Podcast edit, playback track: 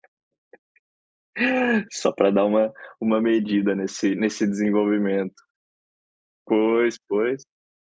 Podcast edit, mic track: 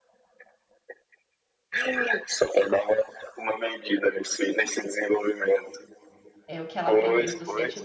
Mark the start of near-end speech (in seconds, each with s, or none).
6.5 s